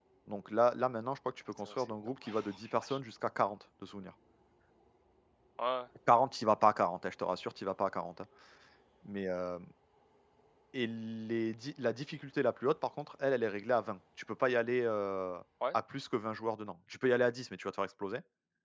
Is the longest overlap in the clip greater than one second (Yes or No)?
Yes